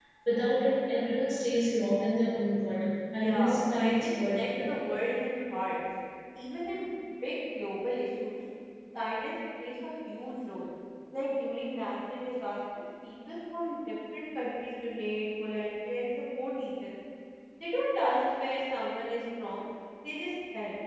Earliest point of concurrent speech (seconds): 3.1 s

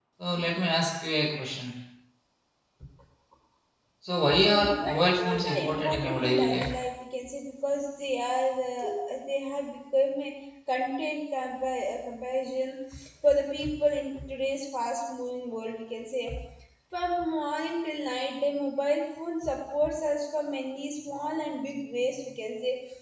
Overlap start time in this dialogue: 4.3 s

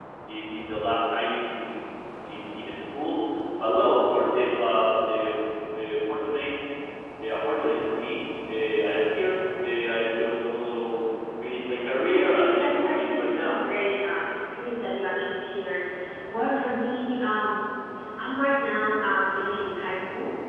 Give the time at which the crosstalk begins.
12.1 s

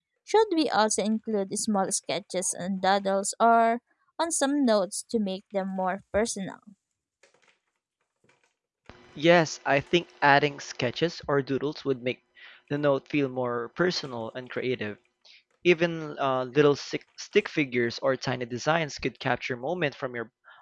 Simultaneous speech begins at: none

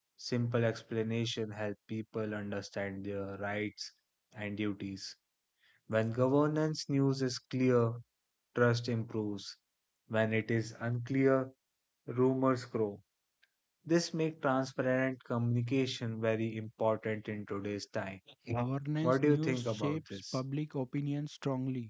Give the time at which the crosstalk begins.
19.0 s

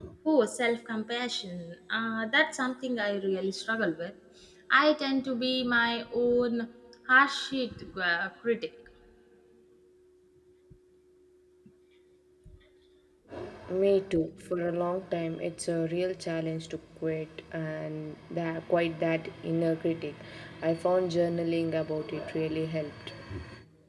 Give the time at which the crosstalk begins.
none

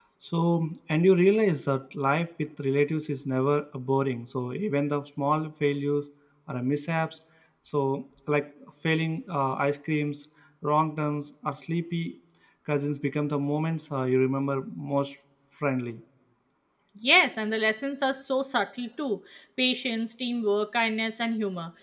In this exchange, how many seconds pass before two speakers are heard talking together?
none

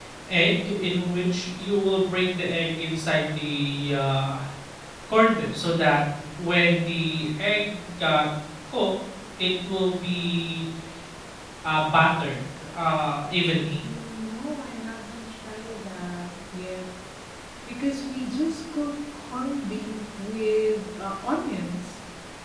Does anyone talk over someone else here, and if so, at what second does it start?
none

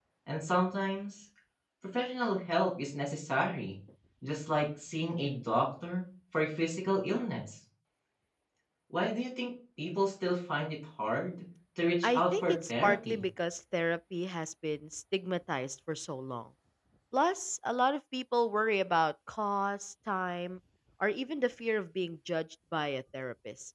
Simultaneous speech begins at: 12.0 s

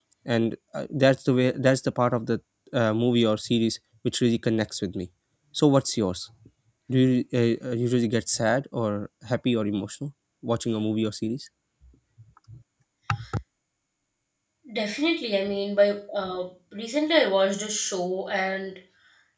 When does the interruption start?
none

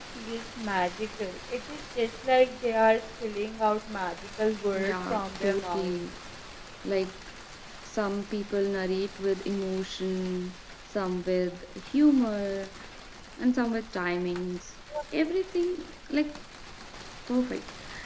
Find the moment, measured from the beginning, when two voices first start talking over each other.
4.7 s

